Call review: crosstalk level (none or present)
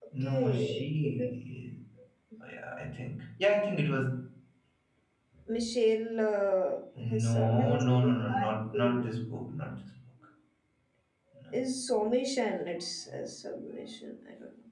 present